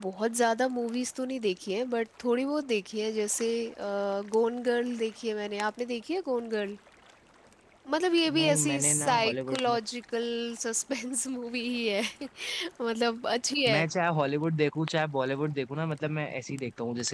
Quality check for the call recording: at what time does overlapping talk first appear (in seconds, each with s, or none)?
8.4 s